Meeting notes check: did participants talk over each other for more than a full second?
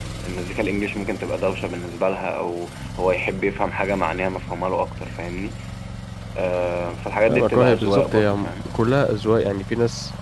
Yes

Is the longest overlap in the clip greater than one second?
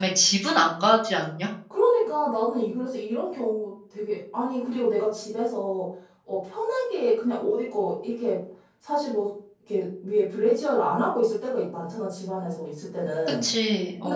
No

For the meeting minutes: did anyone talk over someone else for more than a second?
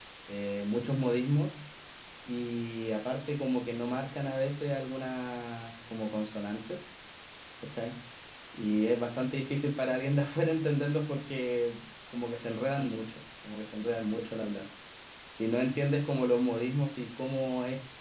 No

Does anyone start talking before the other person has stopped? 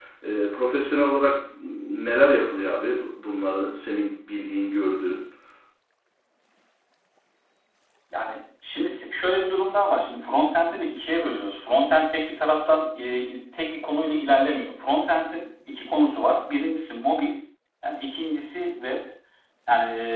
No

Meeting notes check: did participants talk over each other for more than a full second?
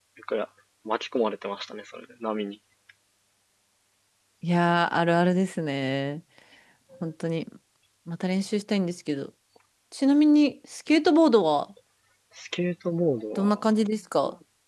No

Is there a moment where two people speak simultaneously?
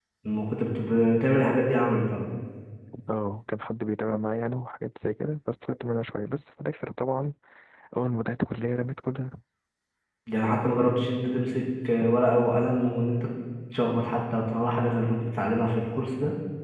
No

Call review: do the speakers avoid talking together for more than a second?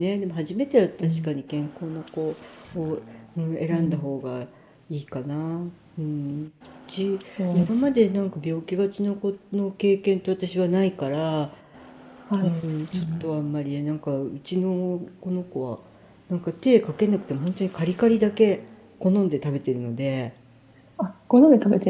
Yes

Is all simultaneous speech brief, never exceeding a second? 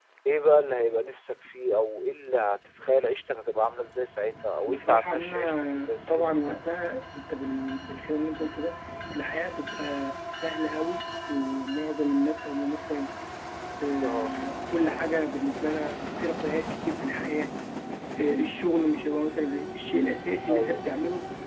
No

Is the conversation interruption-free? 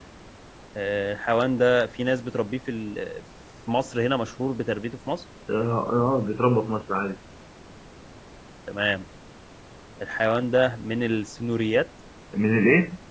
Yes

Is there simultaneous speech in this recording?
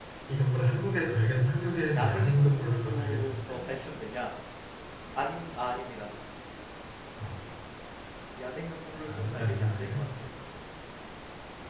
Yes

